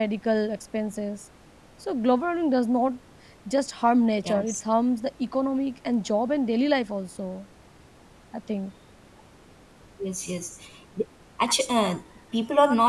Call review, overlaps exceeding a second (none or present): none